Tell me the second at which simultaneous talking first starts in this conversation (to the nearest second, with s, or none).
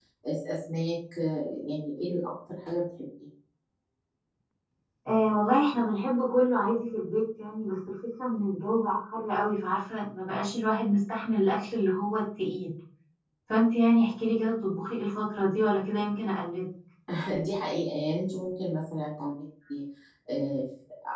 none